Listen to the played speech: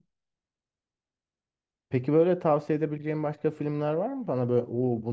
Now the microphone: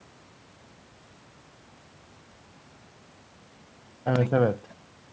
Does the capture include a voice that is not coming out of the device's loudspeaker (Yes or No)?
Yes